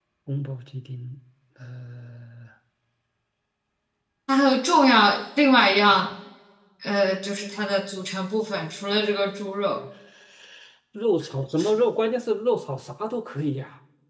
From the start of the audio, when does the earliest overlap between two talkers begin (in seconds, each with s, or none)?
none